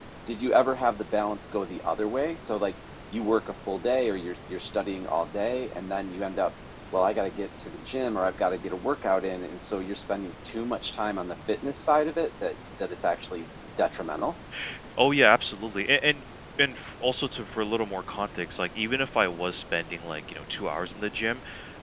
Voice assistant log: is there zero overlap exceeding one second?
Yes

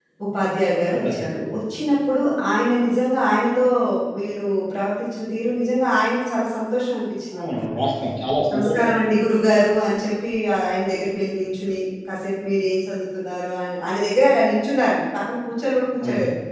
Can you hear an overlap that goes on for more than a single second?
No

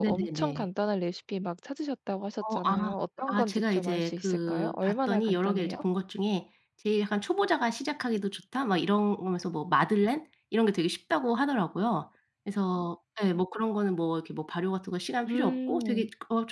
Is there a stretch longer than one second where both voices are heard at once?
Yes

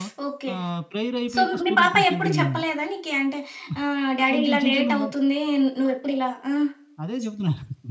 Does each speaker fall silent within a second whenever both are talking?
No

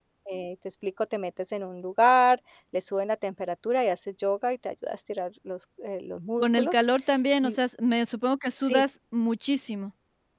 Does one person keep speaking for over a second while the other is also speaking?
No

